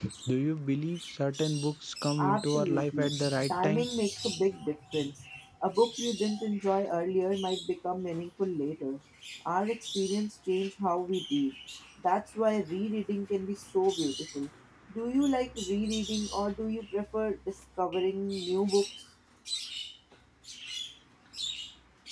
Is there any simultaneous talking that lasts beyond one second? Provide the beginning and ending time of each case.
2.2-3.9

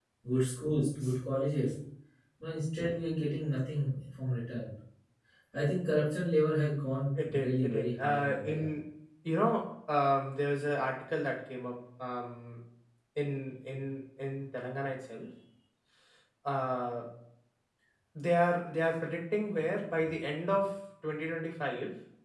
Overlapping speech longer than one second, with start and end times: 7.2-8.7

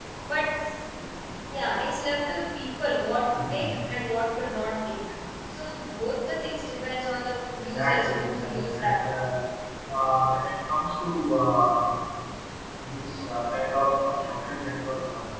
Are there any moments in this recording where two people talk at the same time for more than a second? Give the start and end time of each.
7.7-9.0

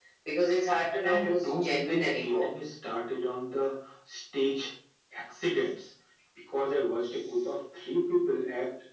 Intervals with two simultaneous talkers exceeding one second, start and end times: 1.0-2.5

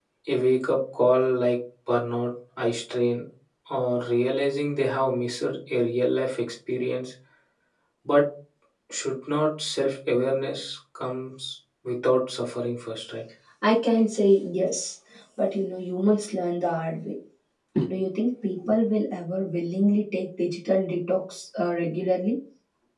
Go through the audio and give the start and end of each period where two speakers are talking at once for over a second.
none

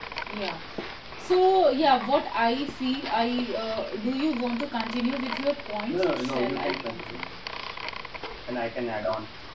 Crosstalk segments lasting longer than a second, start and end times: 5.9-7.2

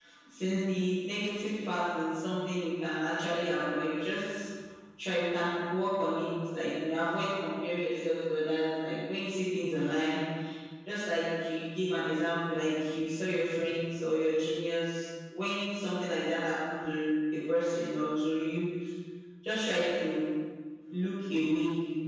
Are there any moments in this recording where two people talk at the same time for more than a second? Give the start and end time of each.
none

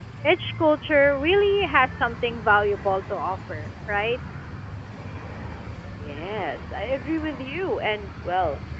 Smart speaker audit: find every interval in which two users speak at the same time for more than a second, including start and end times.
none

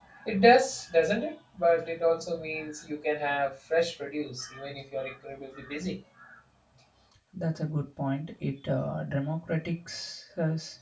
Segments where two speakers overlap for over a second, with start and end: none

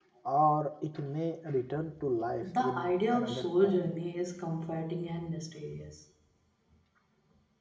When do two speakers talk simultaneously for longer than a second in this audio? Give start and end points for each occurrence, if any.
2.4-3.9

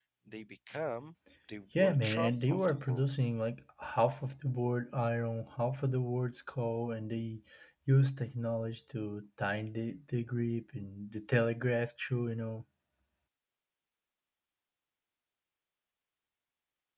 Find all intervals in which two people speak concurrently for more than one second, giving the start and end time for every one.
1.8-3.0

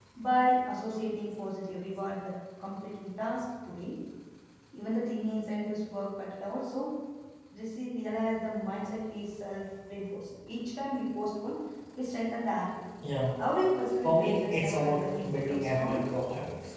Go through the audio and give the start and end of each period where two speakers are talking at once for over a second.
14.0-16.1

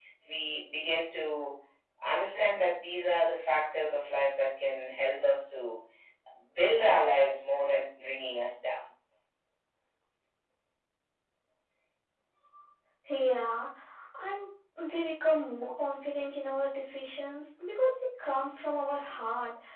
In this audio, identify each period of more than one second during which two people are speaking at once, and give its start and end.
none

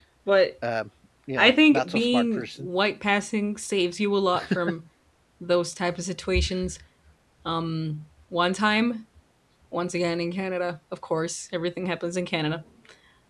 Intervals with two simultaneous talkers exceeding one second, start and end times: 1.4-2.7

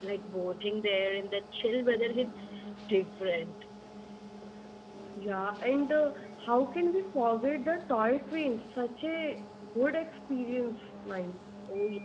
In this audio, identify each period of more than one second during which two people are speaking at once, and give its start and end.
none

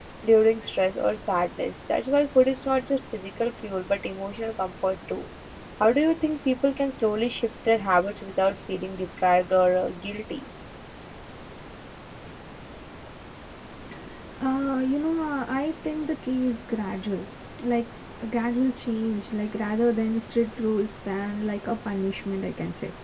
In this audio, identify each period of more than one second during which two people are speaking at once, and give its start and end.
none

